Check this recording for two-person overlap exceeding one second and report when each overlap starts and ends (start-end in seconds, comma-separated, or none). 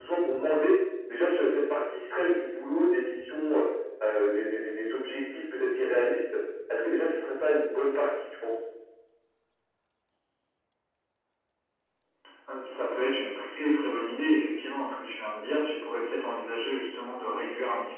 none